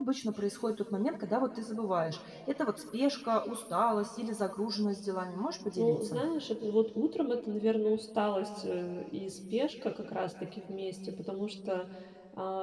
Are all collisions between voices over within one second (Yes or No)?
Yes